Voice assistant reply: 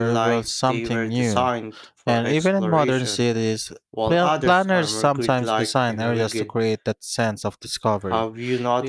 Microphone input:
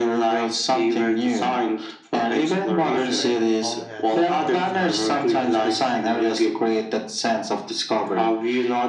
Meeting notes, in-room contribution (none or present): present